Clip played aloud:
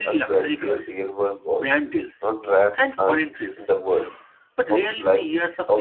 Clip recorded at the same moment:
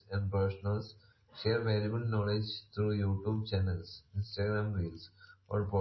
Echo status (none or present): none